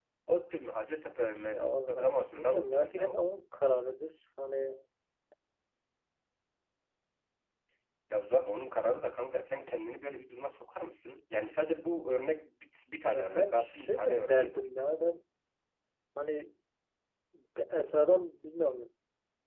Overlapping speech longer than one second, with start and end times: 1.5-3.2, 13.1-14.7

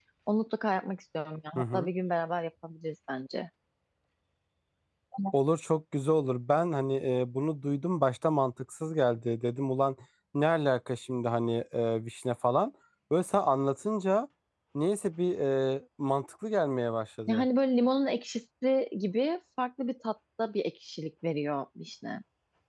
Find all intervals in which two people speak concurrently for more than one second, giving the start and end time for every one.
none

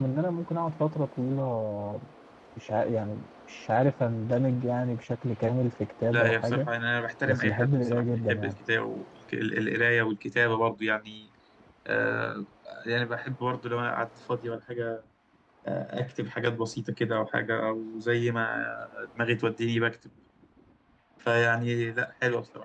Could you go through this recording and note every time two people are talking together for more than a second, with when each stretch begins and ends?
7.3-8.5

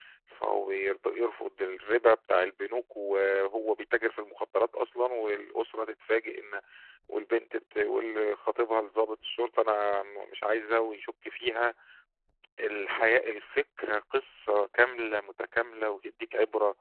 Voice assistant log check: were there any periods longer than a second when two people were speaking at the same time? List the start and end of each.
none

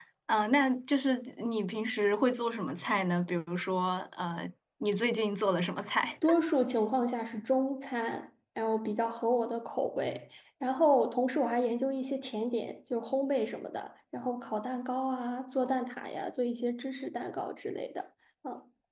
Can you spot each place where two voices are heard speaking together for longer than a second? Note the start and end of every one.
none

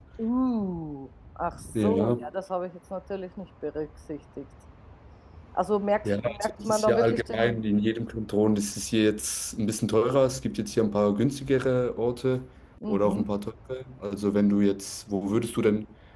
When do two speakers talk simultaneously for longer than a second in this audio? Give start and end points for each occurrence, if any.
6.0-7.6

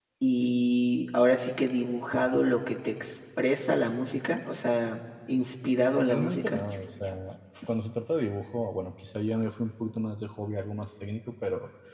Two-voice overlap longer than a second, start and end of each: none

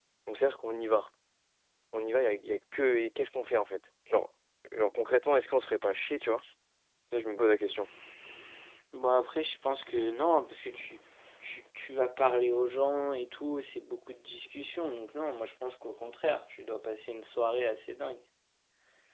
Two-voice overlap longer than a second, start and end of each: none

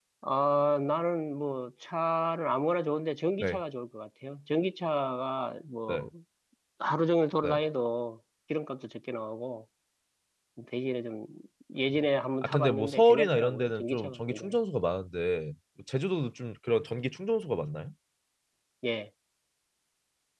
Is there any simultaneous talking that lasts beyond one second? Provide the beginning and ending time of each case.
12.4-14.6

